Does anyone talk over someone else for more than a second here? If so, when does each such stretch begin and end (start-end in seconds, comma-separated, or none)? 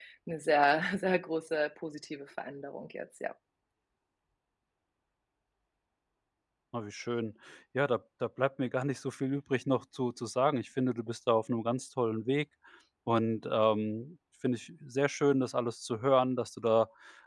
none